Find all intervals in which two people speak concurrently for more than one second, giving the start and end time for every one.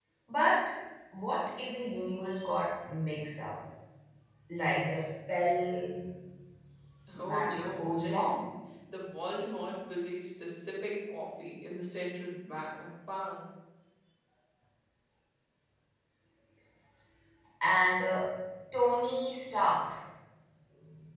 7.2-8.4

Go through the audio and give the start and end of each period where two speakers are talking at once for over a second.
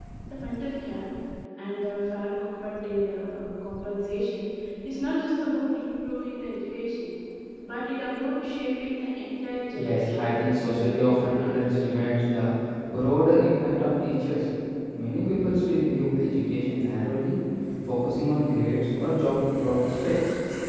9.7-12.1

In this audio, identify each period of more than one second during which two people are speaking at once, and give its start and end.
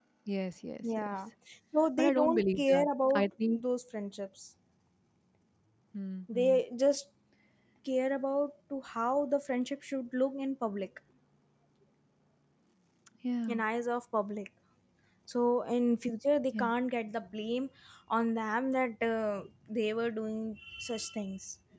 2.0-3.6

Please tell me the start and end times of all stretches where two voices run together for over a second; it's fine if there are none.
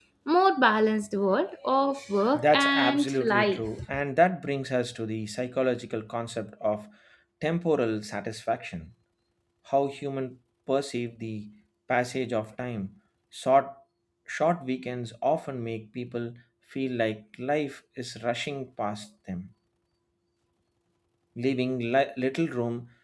2.3-3.7

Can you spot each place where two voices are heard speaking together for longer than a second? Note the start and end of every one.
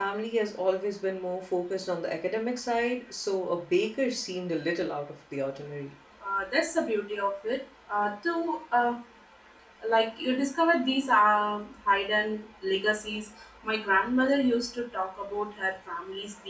none

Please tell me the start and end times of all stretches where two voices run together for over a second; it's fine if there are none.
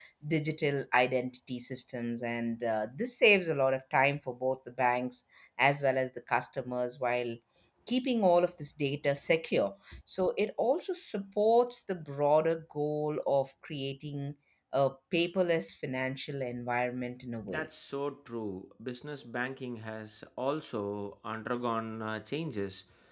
none

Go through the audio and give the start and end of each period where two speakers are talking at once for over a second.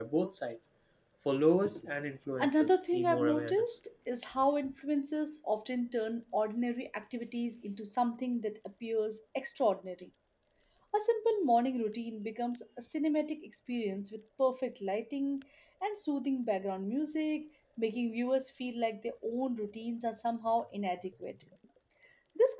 2.4-3.8

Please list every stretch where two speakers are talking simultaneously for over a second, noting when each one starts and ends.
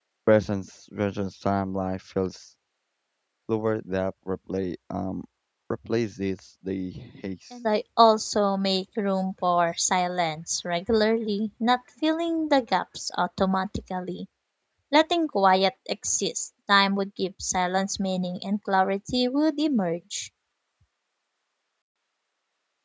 none

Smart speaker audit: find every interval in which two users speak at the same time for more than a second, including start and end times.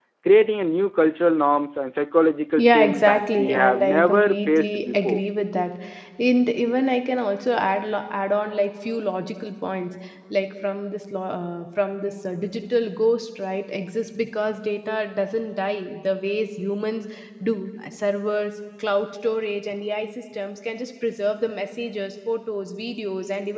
2.6-5.2

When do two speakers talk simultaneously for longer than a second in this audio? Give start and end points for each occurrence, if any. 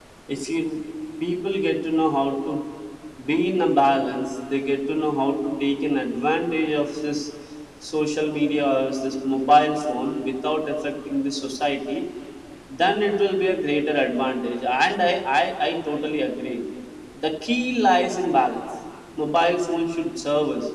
none

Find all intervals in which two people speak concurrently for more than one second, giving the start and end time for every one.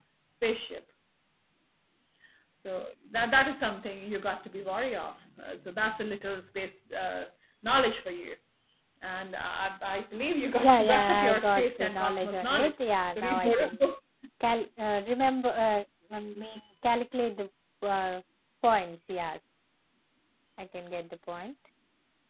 10.6-13.8

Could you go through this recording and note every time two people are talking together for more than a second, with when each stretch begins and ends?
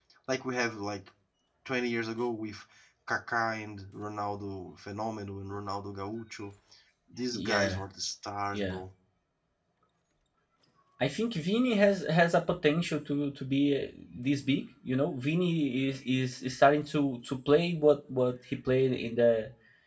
none

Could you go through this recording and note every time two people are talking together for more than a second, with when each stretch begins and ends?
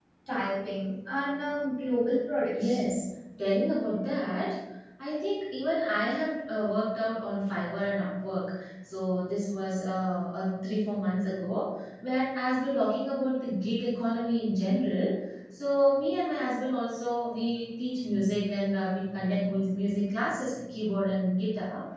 none

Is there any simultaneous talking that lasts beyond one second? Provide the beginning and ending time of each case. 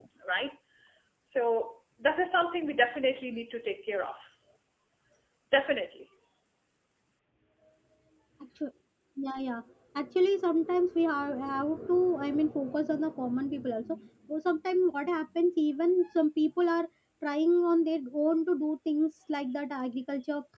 none

